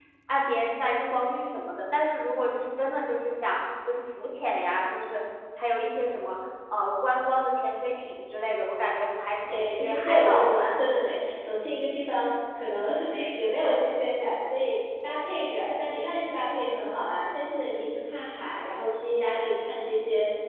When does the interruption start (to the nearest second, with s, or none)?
9 s